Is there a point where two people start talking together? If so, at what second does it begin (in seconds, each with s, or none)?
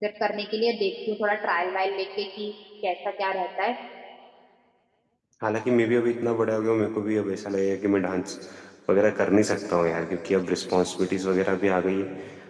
none